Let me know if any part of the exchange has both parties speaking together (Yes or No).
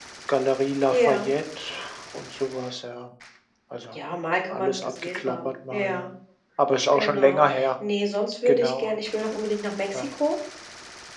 Yes